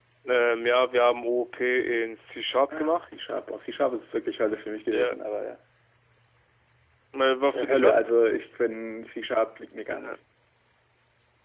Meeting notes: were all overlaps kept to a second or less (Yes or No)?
Yes